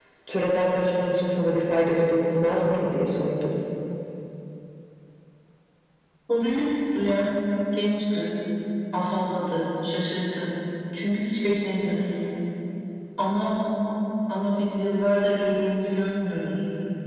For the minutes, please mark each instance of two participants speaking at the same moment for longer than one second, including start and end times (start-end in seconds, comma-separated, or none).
none